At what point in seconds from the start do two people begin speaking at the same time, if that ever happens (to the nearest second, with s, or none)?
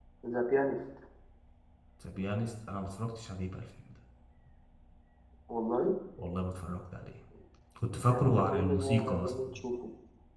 8 s